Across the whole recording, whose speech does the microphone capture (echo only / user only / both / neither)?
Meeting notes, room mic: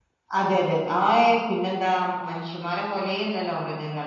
user only